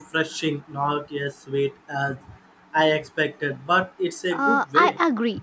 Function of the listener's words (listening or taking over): taking over